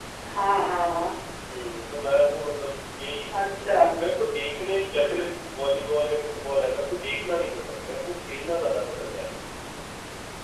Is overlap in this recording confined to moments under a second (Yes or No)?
Yes